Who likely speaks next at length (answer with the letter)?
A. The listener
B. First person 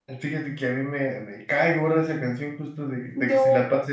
B